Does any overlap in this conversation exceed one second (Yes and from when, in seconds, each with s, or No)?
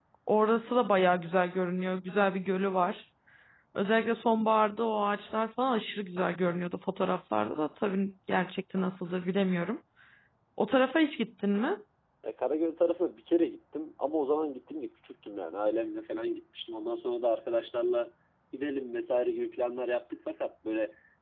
No